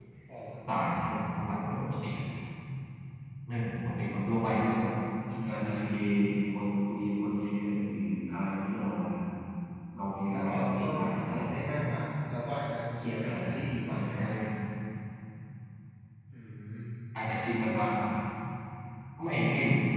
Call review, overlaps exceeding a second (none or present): present